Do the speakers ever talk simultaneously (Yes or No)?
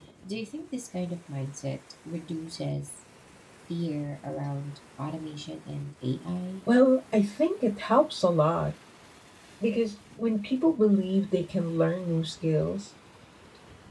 No